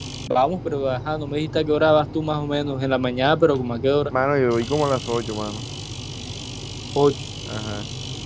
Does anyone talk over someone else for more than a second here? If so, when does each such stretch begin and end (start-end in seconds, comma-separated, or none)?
none